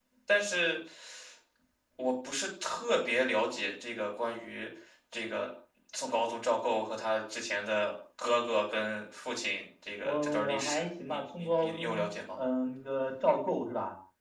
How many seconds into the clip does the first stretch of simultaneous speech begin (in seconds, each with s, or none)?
10.0 s